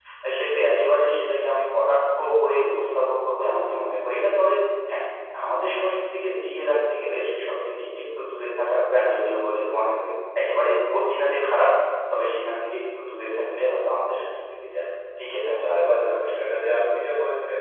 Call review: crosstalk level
present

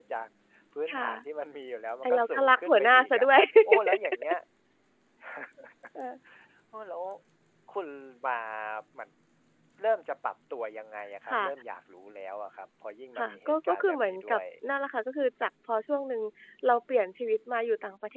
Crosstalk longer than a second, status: present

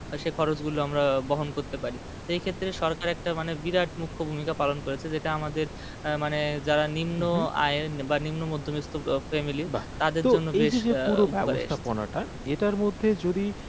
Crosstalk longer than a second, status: present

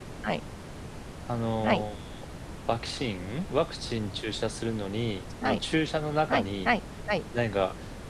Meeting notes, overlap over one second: none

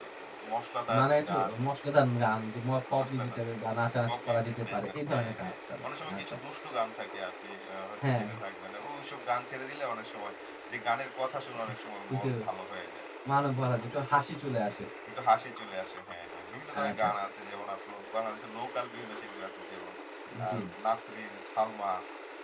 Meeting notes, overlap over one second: present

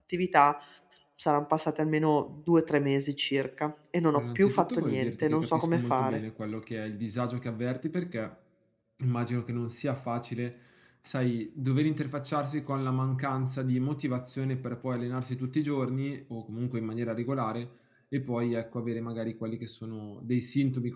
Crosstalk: present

